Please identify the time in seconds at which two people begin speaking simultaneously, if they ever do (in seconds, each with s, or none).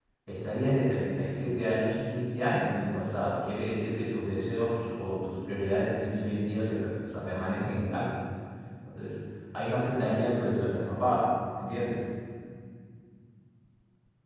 none